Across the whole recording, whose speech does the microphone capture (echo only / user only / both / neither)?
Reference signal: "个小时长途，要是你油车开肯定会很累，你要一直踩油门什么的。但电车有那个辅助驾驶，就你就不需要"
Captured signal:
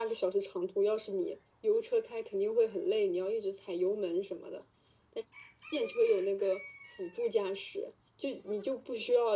echo only